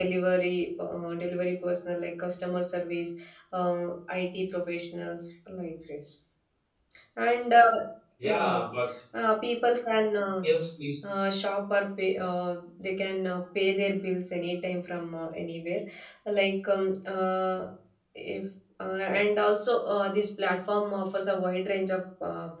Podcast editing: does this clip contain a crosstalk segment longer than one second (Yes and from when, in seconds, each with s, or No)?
No